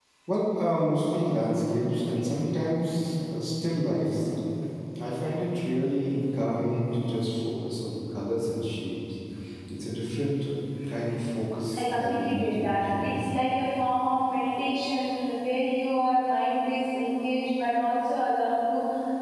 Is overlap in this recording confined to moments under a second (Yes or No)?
No